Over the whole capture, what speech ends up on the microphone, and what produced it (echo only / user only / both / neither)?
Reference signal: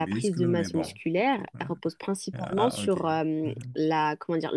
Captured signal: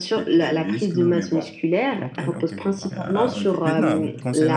both